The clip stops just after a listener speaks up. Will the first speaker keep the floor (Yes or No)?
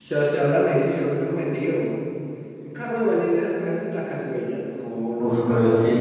No